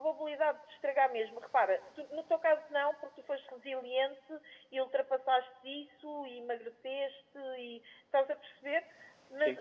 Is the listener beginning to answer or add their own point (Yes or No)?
No